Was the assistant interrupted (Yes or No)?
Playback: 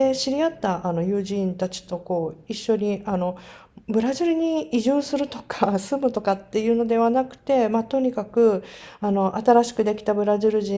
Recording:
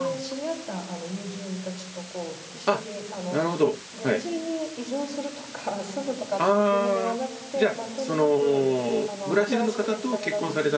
Yes